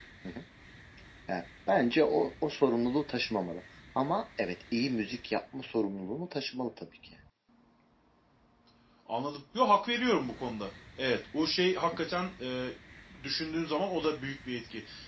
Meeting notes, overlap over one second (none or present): none